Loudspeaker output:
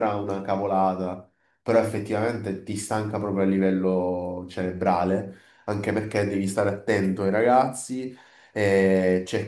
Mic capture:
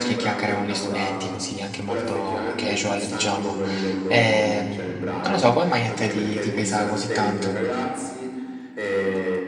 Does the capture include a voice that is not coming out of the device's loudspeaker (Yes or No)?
Yes